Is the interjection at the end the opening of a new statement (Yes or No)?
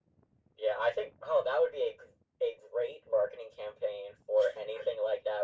No